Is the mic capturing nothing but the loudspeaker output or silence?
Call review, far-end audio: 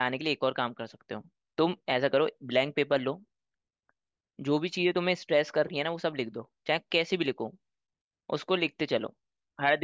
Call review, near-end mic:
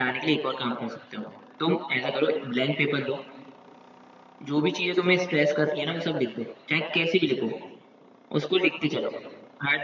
Yes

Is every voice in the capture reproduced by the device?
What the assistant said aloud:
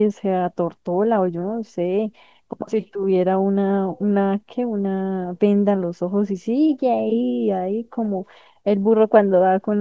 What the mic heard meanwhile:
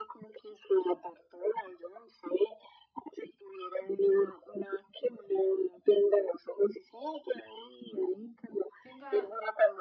No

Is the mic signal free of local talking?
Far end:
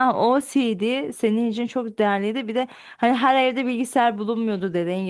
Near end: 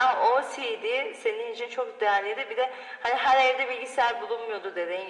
Yes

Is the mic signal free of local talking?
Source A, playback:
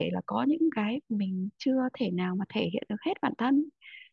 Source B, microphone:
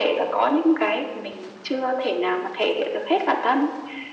Yes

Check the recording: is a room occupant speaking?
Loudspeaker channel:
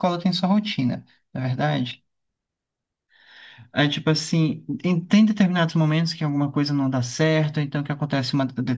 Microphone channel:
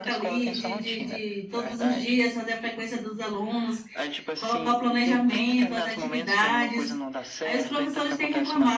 Yes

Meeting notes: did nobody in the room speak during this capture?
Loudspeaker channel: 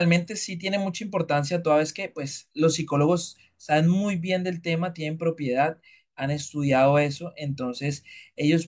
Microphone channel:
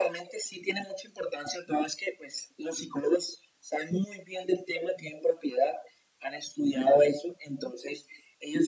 Yes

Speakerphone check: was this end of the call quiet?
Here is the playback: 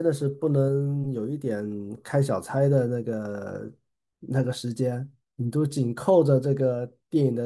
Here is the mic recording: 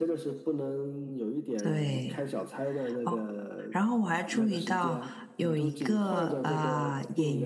No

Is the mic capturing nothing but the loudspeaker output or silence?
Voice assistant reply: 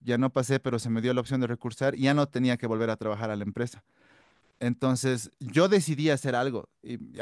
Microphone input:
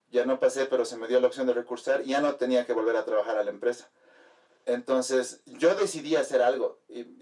Yes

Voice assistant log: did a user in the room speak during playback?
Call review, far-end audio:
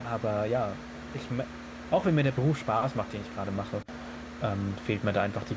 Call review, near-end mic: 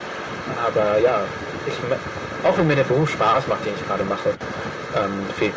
No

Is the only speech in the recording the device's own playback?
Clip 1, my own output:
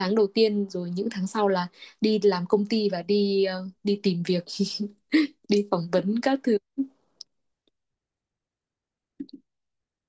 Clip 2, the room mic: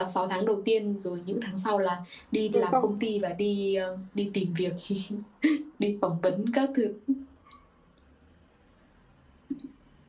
No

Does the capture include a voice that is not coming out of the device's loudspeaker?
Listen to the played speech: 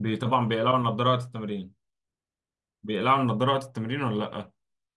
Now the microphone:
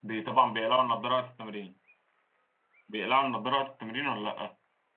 No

